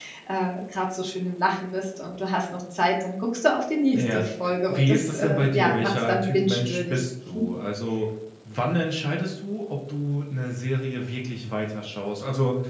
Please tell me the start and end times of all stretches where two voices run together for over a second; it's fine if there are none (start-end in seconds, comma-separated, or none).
4.7-7.0